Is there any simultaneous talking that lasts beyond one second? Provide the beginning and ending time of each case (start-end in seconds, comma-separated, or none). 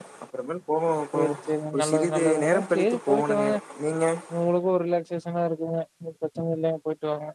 1.7-3.5